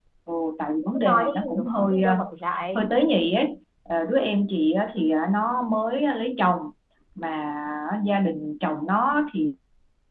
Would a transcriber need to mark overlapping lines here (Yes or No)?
Yes